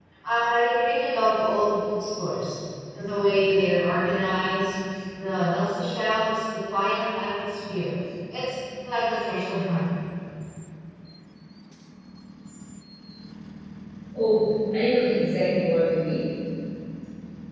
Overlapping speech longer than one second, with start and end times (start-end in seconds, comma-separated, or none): none